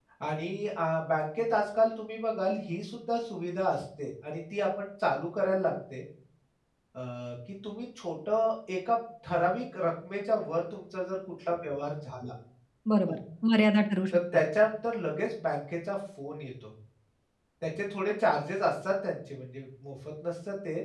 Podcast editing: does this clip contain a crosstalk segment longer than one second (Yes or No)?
No